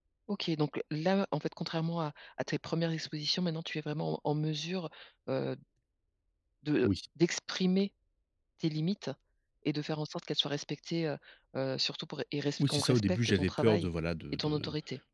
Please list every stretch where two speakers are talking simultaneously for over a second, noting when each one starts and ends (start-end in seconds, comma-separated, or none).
12.6-13.9